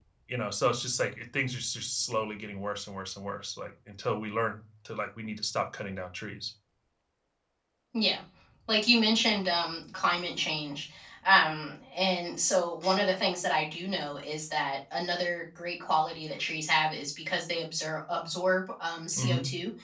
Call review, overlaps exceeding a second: none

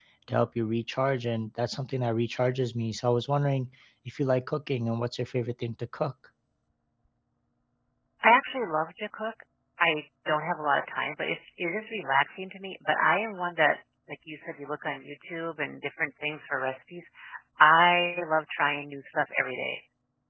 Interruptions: none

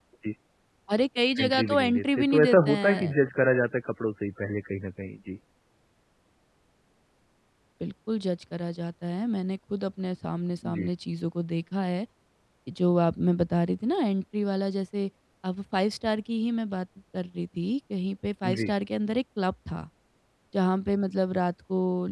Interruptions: present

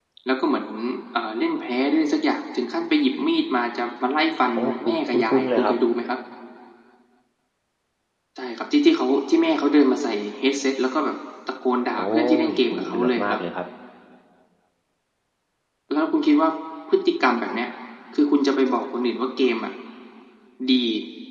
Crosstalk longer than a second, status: present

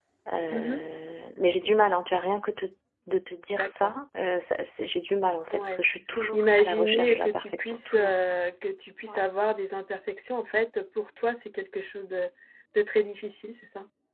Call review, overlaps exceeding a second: present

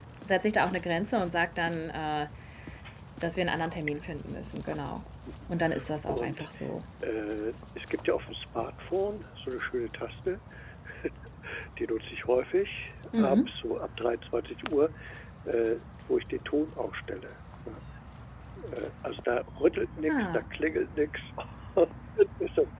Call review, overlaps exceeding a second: none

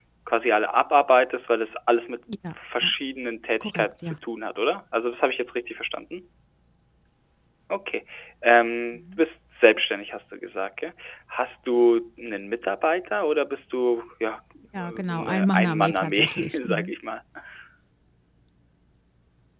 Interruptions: present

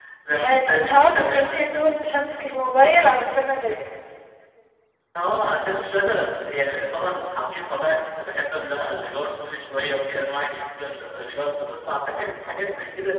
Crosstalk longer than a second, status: present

